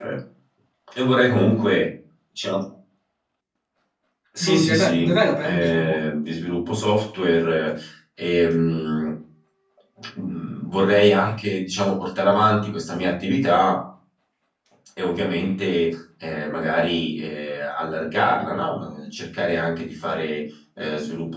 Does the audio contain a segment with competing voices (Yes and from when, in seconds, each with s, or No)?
Yes, from 4.4 s